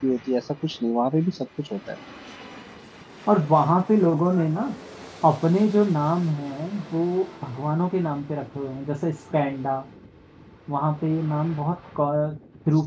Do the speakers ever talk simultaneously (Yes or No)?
No